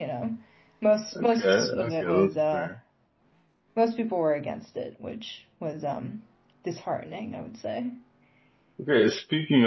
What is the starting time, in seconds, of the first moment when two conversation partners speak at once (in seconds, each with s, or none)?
1.2 s